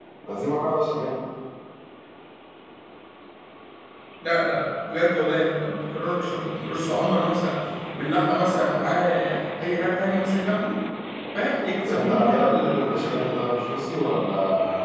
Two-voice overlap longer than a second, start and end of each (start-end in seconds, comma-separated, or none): 11.9-13.2